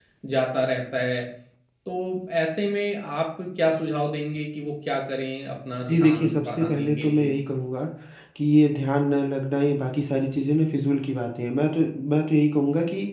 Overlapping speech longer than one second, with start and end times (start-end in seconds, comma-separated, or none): 5.9-7.3